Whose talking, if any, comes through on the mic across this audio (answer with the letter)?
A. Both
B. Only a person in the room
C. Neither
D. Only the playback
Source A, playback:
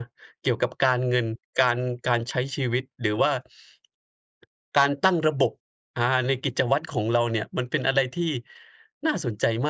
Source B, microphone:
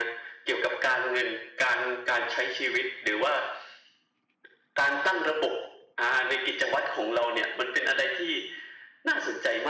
D